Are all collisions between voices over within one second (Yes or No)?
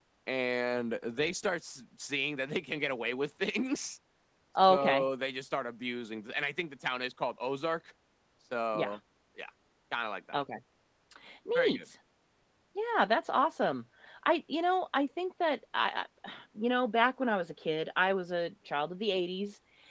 Yes